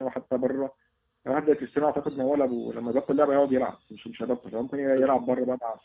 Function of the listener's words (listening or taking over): listening